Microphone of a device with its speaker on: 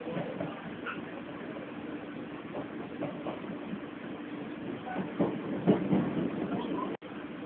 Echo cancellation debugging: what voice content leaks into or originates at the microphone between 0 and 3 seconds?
neither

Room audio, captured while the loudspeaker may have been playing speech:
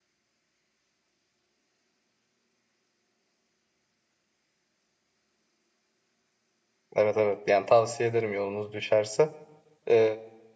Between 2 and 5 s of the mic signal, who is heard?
neither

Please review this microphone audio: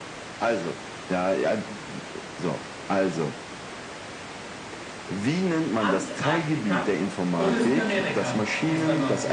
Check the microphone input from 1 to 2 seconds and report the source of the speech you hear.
echo only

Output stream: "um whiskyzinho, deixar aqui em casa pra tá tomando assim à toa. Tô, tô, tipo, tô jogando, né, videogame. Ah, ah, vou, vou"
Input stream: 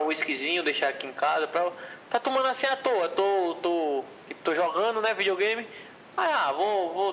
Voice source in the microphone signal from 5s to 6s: echo only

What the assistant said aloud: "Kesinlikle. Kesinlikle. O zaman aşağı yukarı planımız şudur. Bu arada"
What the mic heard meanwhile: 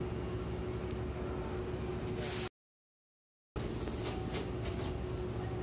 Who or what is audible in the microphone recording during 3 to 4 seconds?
neither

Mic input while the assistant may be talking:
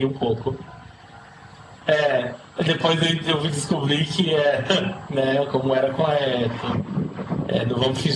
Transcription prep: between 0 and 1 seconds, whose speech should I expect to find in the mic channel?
echo only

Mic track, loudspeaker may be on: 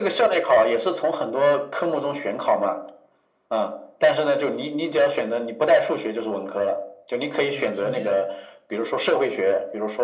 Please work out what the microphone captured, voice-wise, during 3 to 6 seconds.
echo only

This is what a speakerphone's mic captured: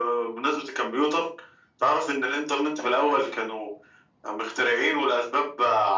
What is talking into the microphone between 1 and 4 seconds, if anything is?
echo only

